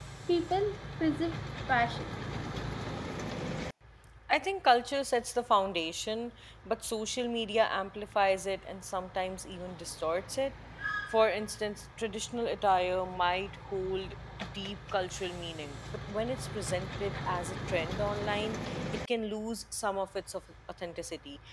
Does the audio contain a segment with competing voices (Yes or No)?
No